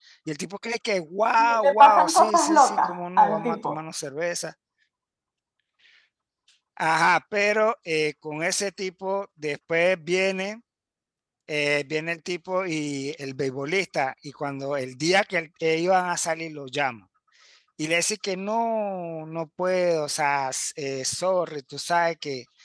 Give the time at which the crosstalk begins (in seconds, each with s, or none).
1.4 s